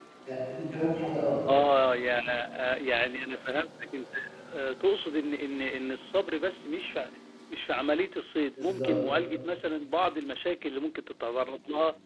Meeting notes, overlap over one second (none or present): none